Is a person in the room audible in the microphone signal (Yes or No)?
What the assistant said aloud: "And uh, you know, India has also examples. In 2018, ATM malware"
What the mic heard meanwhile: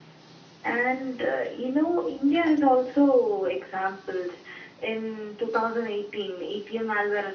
No